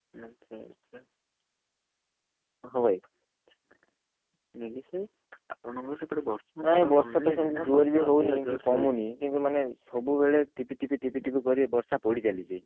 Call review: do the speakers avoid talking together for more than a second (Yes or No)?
No